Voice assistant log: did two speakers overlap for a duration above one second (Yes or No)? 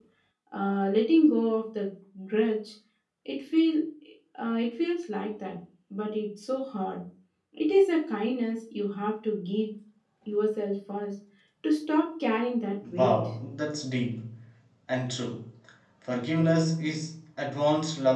No